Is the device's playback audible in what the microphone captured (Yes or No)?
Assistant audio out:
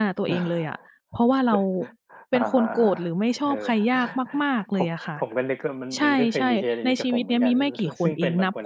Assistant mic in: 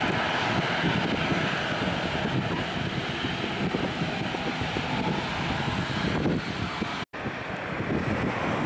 No